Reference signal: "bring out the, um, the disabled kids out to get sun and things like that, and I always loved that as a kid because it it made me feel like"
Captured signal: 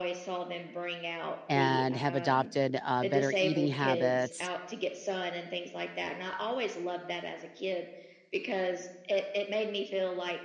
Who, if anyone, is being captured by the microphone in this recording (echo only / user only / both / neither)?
both